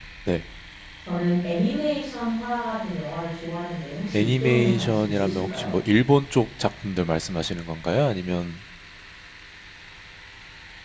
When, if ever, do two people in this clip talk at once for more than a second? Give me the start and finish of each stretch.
4.2-5.7

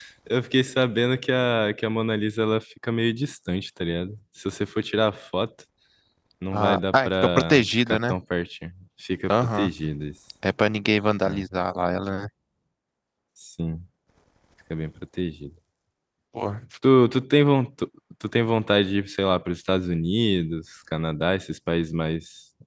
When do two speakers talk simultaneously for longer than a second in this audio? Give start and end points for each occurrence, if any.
6.5-8.1

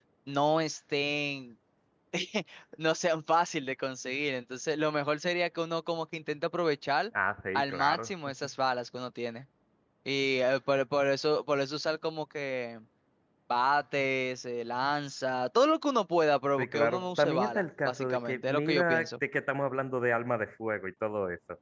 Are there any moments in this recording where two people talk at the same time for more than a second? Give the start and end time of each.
16.6-19.1

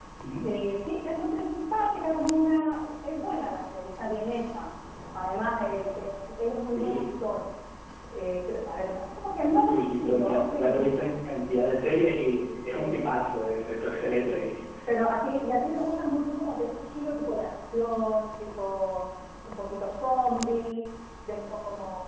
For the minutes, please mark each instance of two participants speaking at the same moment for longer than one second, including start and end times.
9.6-11.2

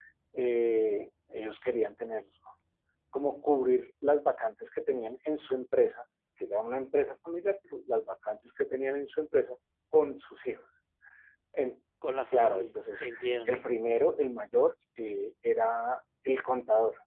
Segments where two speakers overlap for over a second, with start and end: 12.3-13.6

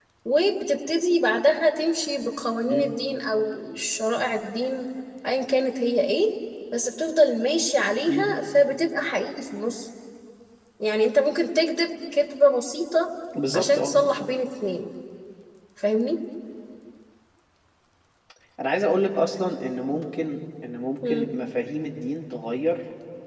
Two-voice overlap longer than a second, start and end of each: none

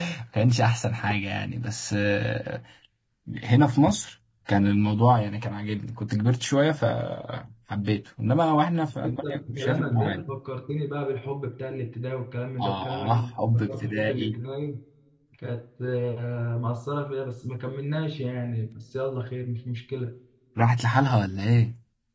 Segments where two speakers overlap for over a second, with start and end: 8.8-10.2, 12.6-14.4

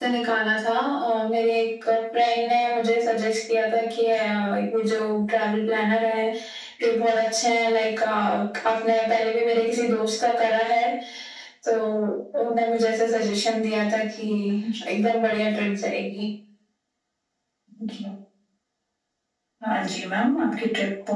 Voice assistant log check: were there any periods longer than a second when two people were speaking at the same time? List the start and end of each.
none

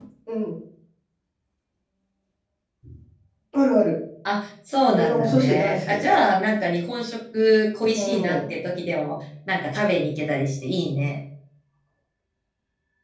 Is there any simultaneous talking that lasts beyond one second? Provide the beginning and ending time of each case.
4.9-6.2

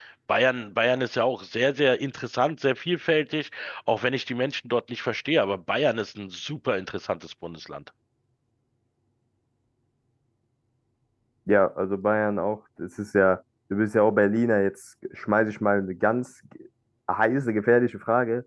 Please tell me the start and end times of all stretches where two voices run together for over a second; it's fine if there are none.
none

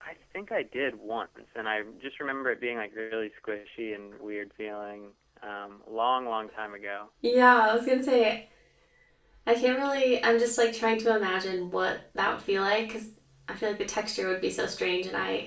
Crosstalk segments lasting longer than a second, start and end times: none

